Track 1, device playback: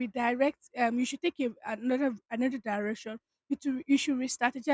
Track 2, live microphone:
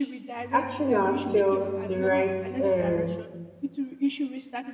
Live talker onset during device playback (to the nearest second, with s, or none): 1 s